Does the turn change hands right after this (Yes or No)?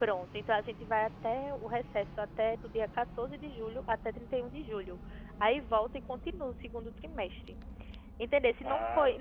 No